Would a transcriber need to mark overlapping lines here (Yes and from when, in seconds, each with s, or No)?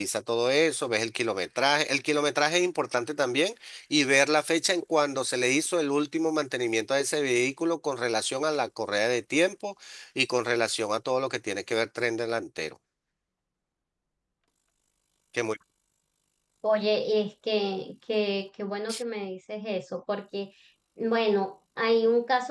No